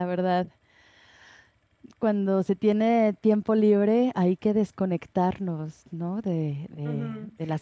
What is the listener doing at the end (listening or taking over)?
taking over